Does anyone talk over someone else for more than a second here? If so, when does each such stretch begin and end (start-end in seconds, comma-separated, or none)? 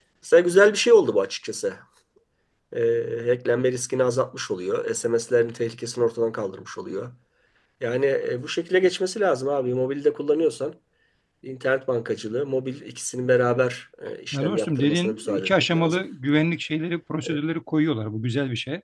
14.3-16.0